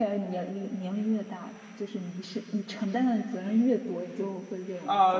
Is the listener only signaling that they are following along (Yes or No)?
No